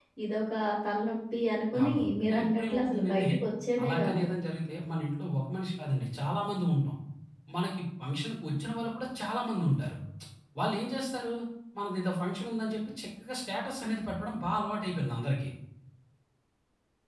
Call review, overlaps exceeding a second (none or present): present